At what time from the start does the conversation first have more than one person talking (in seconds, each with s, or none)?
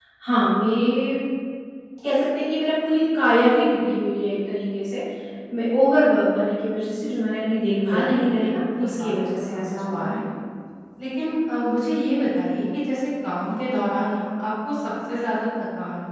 7.9 s